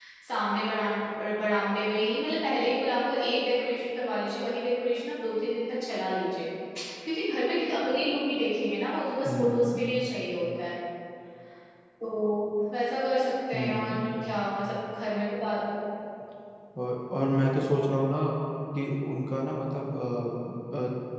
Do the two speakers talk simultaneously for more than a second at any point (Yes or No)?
No